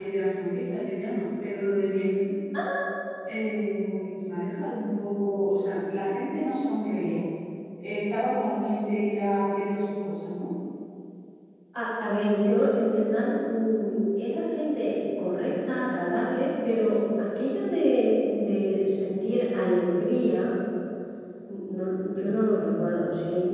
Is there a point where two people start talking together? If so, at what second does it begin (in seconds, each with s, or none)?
none